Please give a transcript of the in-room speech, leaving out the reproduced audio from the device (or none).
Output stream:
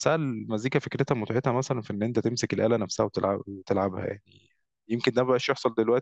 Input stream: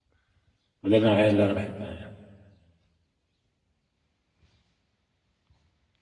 وده النوعيه اللي انا بحبها يعني